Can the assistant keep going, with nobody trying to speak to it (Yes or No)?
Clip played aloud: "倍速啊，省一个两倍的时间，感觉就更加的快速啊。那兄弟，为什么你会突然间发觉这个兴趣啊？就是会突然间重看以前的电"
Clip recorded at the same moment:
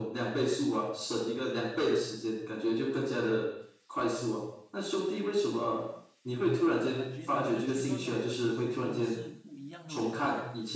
No